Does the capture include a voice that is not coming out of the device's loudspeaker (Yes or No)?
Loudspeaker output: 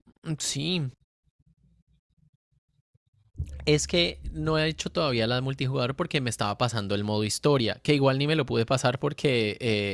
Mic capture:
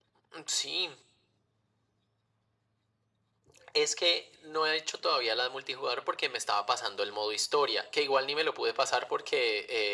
No